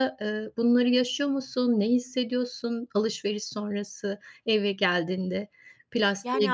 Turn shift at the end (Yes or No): Yes